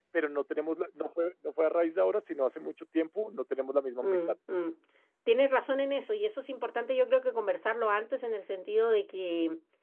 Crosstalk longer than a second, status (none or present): none